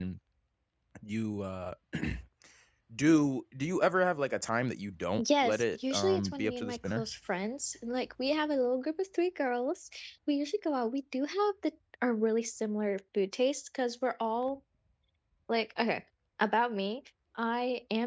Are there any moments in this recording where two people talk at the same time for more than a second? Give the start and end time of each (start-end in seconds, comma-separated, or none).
5.4-7.1